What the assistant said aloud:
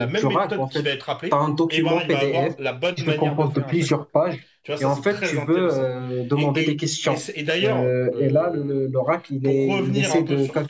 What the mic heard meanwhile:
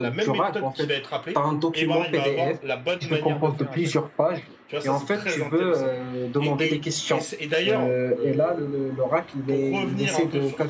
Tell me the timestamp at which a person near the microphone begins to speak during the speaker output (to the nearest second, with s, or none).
none